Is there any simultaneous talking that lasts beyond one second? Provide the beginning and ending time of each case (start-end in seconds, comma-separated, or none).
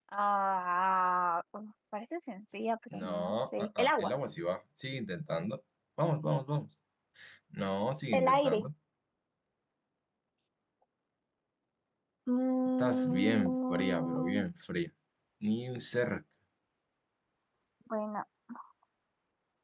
2.9-4.1, 12.8-14.4